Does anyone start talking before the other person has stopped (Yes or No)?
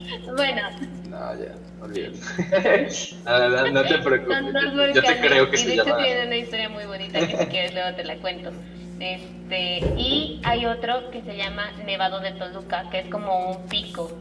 Yes